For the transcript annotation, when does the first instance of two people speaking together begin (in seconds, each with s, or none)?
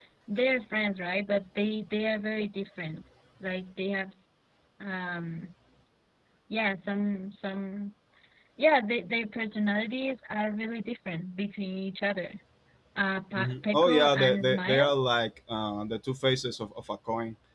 13.3 s